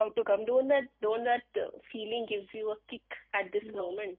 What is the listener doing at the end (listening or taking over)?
taking over